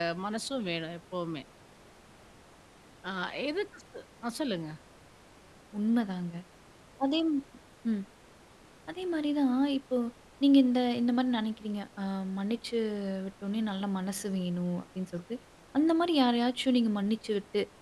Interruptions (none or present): none